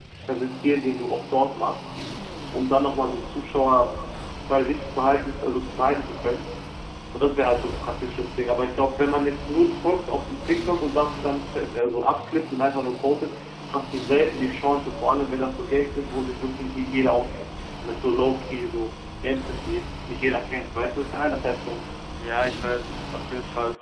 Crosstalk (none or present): none